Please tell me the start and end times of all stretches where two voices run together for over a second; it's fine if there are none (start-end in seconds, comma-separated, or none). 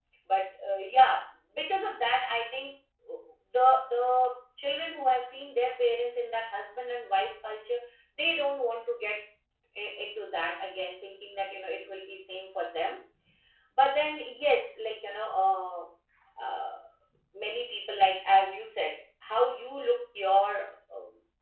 none